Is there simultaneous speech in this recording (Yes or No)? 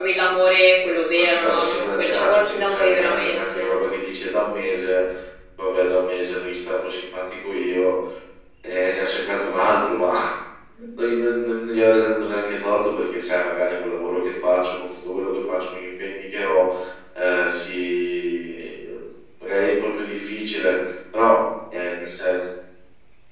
Yes